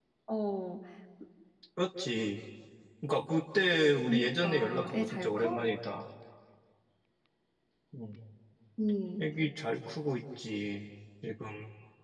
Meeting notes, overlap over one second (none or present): present